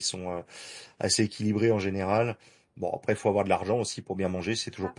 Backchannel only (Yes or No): Yes